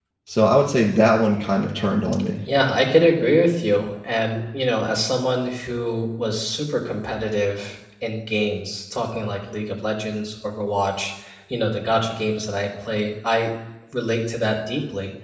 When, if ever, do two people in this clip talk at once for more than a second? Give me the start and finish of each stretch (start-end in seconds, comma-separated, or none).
none